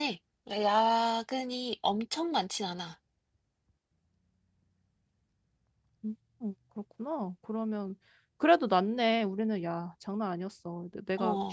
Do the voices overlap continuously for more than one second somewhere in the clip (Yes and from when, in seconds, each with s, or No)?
No